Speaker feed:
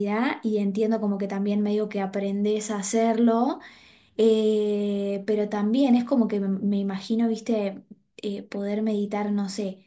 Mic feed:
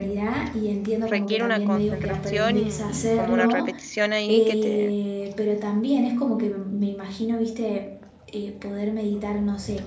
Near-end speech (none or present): present